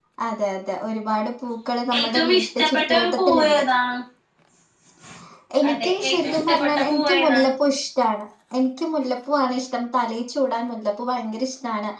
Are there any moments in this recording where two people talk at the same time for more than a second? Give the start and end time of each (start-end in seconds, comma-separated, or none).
2.0-3.6, 5.7-7.5